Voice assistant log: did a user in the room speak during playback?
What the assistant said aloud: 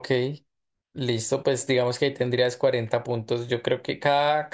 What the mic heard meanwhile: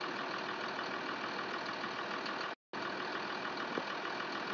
No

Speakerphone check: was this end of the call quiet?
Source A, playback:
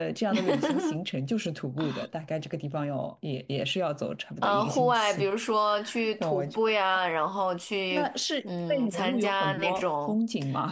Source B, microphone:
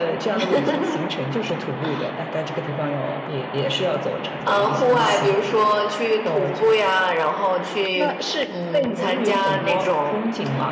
Yes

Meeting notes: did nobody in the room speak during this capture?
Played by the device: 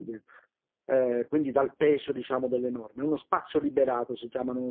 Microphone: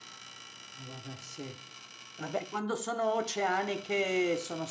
No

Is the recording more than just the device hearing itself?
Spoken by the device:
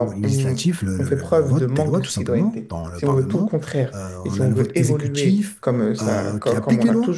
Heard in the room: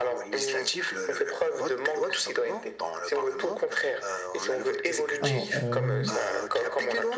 Yes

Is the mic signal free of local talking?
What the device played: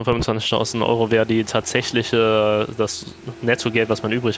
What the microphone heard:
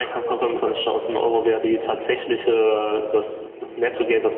No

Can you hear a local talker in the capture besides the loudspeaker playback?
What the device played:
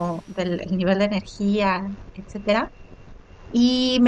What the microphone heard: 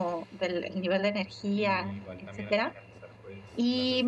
Yes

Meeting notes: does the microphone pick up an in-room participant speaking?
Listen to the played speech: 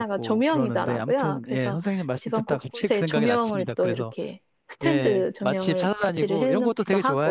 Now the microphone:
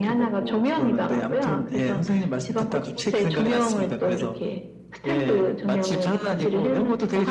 No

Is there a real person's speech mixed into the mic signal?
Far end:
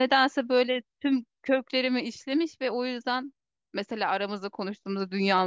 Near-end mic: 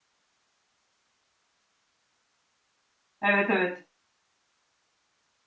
Yes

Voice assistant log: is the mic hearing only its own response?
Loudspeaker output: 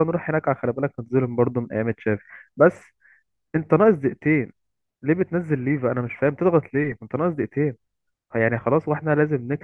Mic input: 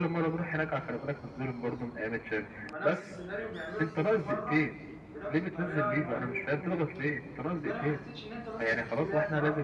No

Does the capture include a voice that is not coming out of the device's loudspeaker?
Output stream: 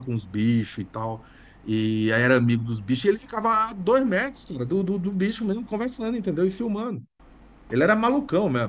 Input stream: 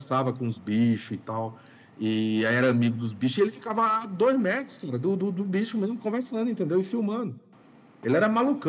No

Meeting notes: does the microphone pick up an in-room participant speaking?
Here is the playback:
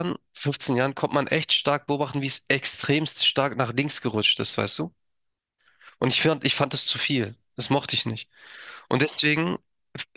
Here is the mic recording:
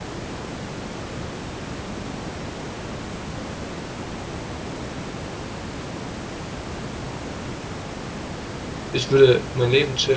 Yes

